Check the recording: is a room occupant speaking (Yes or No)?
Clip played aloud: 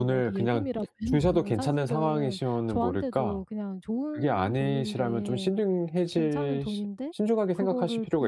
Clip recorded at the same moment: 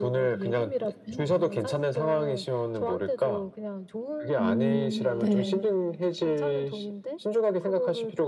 Yes